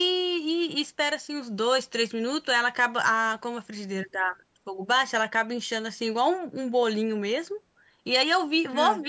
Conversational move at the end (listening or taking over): listening